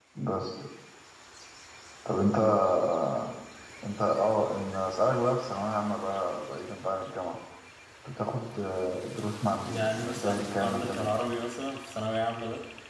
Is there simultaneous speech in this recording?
Yes, from 9.6 s

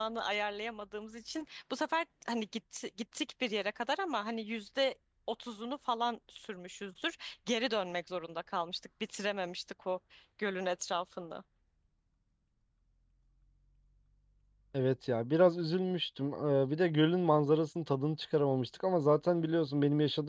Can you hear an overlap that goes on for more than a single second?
No

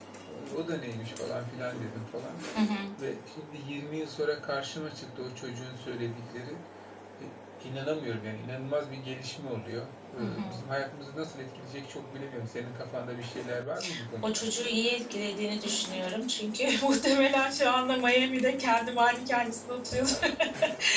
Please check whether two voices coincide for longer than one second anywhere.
No

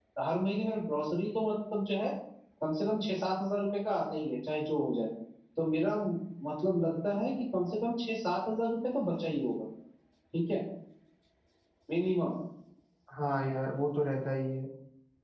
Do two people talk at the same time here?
No

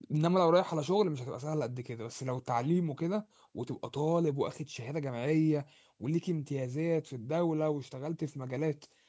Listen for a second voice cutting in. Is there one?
No

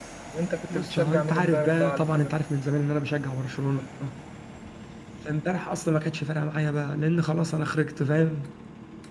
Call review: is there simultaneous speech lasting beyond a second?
Yes, from 0.7 s

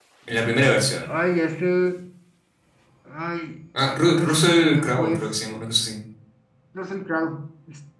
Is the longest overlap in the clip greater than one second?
Yes, from 3.9 s

